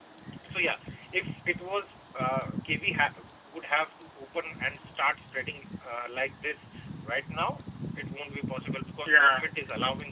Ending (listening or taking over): listening